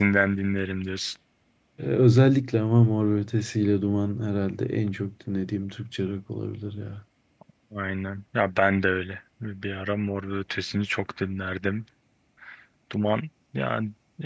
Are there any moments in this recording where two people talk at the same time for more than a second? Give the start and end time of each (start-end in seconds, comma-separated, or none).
none